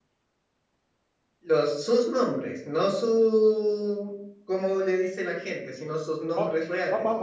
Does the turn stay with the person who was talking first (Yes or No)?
No